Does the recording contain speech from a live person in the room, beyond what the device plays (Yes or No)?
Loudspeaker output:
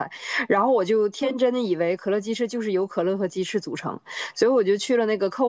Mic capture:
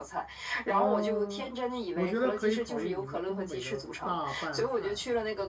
Yes